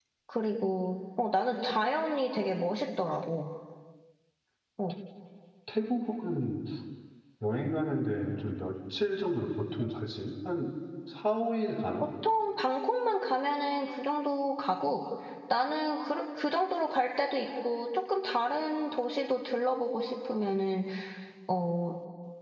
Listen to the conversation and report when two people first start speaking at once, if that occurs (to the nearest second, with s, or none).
none